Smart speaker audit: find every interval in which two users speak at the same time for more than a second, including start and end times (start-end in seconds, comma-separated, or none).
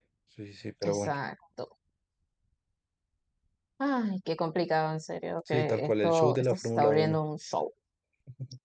5.5-7.2